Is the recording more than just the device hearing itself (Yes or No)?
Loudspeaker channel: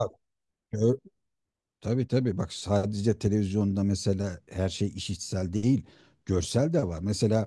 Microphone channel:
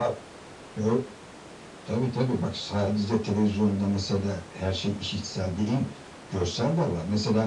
No